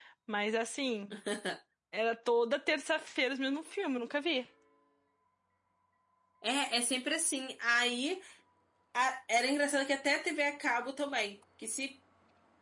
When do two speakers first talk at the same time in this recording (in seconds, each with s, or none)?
none